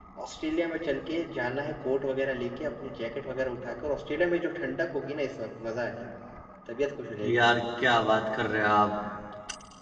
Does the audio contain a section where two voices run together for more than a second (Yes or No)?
No